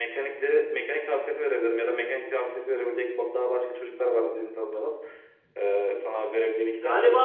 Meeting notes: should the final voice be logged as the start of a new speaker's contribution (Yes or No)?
Yes